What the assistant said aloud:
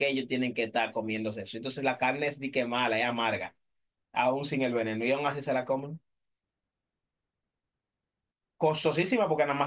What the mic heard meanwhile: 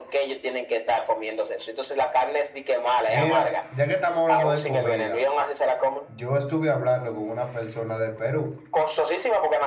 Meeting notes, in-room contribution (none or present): present